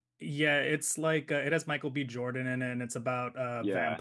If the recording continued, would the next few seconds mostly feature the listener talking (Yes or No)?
Yes